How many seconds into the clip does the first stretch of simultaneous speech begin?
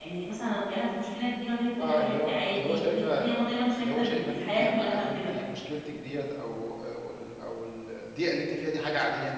1.8 s

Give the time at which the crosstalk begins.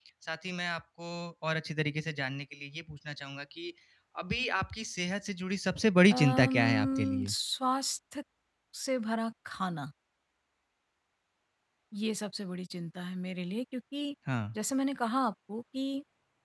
6.1 s

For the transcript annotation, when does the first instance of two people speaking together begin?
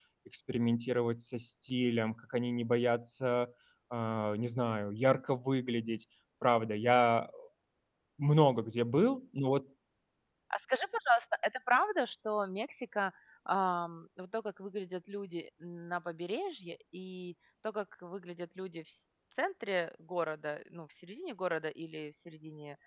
none

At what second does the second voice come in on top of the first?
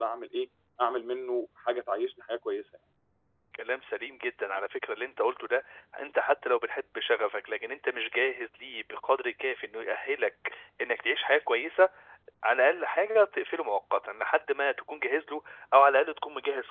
none

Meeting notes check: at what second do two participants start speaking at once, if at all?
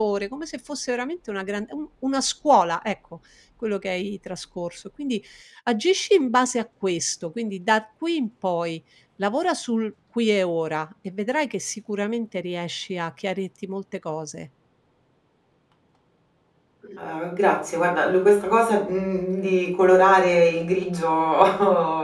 none

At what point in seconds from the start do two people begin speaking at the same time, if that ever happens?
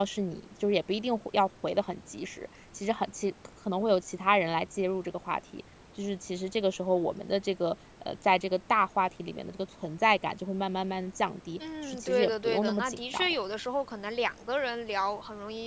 11.6 s

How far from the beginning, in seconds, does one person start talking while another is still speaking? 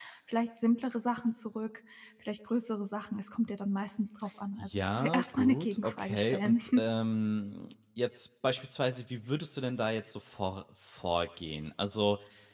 4.6 s

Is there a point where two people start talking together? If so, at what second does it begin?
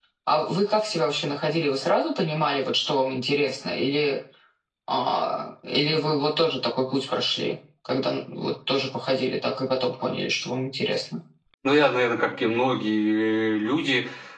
none

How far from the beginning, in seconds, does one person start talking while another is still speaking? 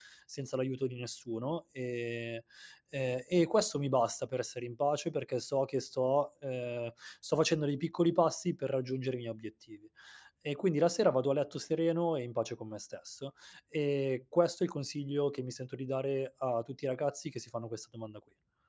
none

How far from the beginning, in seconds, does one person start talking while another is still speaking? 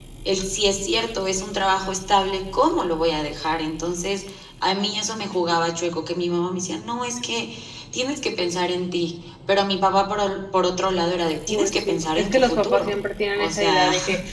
11.5 s

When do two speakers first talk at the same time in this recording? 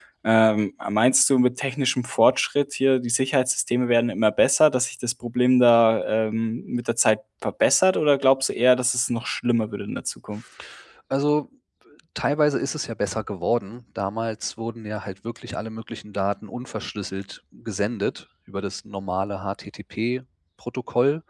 none

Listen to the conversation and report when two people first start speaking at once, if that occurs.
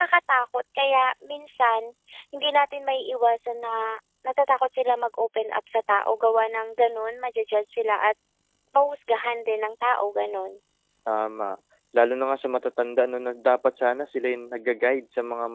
none

